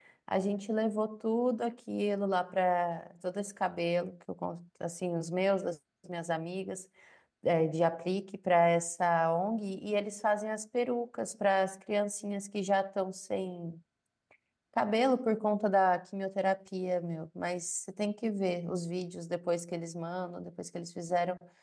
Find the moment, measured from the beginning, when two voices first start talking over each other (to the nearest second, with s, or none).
none